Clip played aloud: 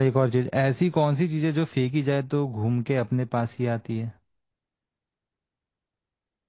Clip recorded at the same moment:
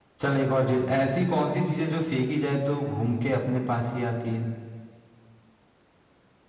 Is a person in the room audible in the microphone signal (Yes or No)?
No